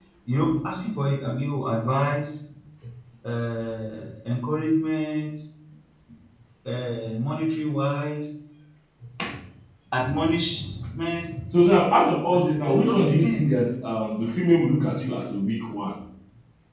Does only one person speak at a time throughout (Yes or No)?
No